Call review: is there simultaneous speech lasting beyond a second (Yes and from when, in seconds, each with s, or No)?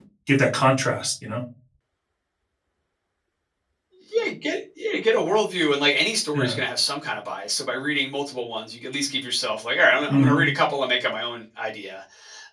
No